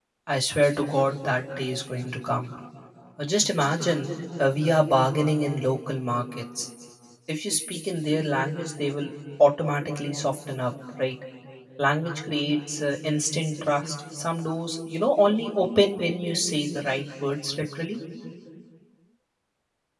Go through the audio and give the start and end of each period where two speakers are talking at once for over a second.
none

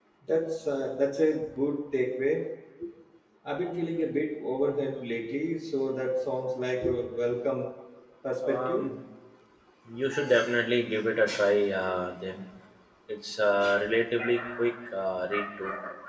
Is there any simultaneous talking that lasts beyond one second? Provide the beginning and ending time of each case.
none

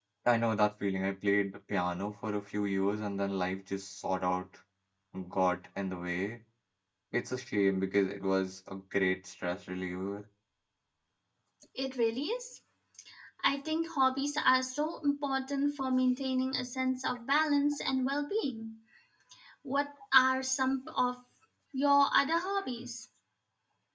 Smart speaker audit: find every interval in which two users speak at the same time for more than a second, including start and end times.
none

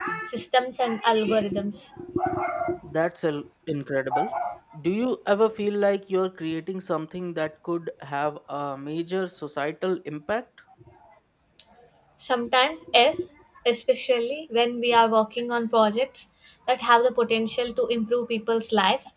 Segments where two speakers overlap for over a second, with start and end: none

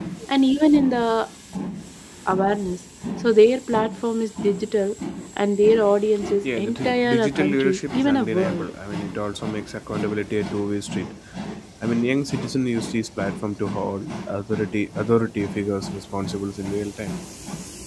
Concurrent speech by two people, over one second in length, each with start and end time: 6.4-8.7

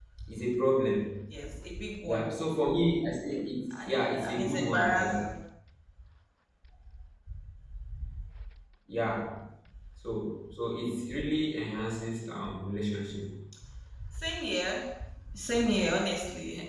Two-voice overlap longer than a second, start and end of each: 3.9-5.1

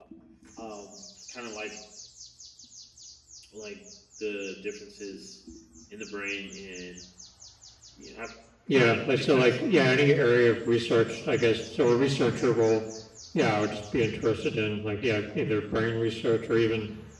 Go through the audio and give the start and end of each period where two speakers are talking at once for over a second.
8.7-10.3

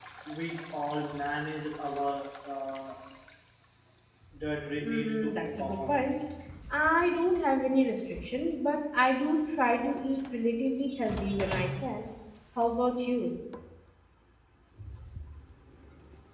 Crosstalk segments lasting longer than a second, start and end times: 4.8-6.1

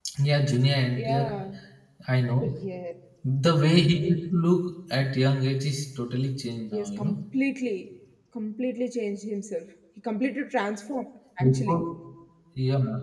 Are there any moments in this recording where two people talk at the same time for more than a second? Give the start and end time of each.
none

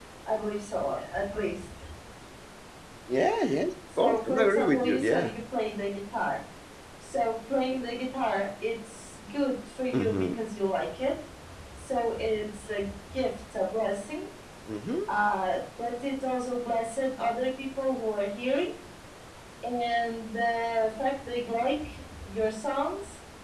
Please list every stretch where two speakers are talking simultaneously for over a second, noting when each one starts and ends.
4.0-5.3

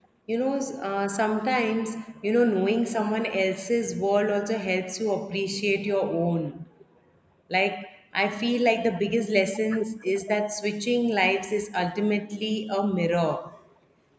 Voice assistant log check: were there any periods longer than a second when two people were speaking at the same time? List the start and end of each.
none

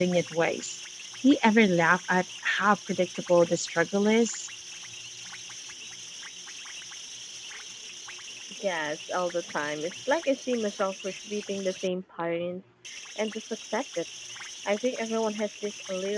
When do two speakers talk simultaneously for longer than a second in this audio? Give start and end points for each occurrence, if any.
none

